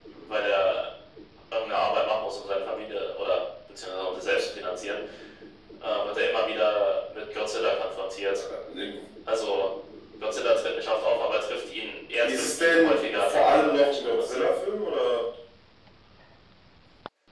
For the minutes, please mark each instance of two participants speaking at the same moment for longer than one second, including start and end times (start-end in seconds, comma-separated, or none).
12.2-14.4